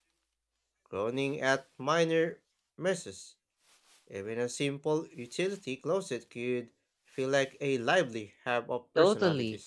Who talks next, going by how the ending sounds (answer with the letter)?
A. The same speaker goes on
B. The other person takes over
B